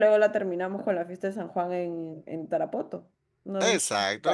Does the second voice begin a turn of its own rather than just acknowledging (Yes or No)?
Yes